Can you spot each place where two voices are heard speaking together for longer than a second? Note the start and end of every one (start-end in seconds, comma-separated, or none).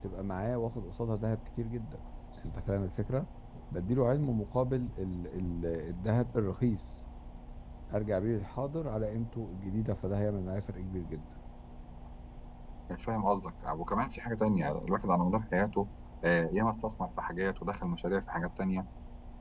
none